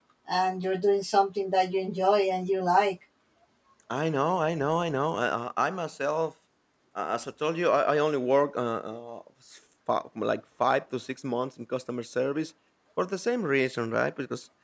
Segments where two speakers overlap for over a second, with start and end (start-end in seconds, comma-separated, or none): none